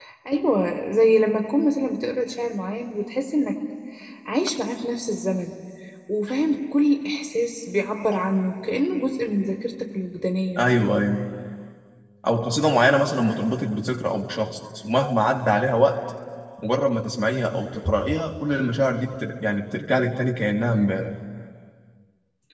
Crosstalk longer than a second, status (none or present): none